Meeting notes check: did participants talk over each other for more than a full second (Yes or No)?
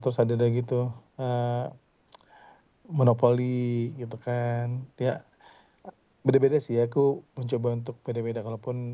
No